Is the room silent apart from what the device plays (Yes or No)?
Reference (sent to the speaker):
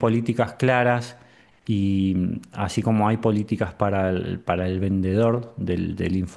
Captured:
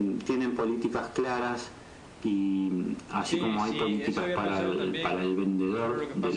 No